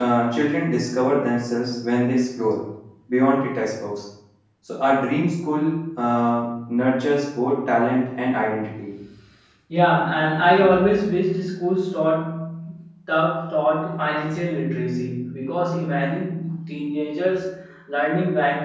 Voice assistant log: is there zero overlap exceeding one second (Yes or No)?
Yes